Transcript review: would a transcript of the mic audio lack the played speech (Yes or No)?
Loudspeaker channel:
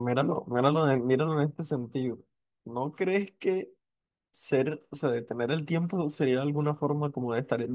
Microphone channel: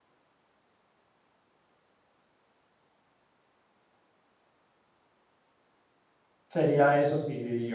Yes